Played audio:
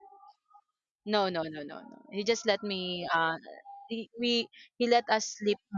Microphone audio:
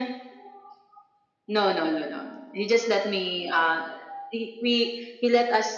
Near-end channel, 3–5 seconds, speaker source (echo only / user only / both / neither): echo only